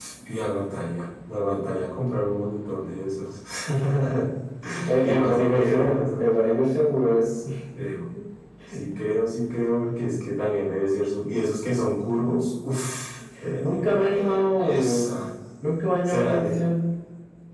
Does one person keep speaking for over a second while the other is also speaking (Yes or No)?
Yes